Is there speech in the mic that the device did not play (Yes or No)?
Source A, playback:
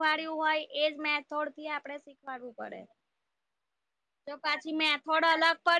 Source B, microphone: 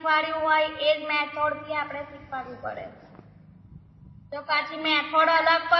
No